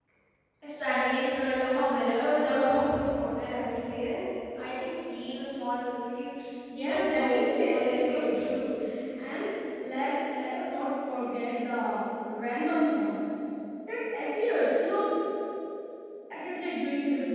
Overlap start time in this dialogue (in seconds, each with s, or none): 6.8 s